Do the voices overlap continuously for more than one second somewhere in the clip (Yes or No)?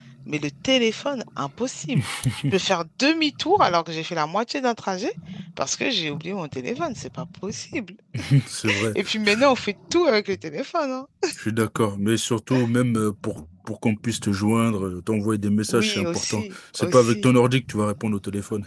Yes